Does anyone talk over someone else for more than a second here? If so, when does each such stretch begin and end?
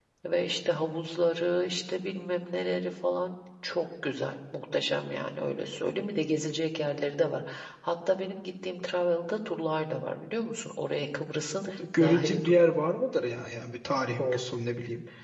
none

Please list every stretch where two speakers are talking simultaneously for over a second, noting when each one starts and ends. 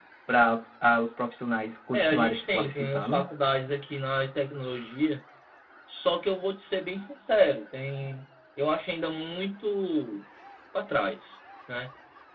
1.9-3.3

